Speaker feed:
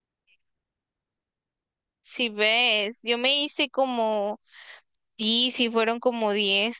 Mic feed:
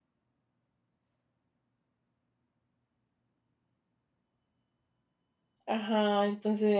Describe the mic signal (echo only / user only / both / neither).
user only